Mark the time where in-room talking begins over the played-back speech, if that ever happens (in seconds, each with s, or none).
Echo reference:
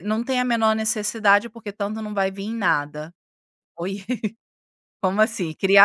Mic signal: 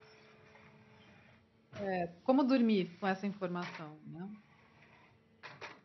1.8 s